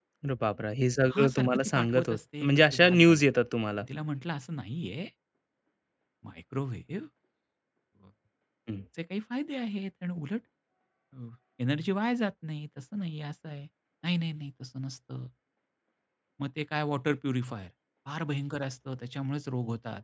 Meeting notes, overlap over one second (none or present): present